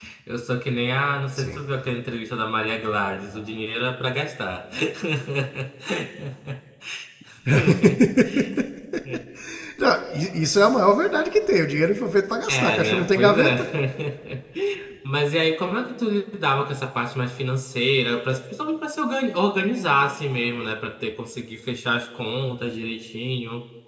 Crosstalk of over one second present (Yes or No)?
Yes